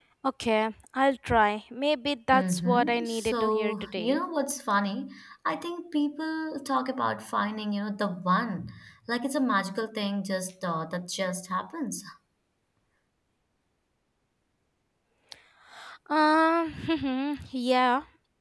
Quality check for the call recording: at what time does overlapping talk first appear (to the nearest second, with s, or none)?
2 s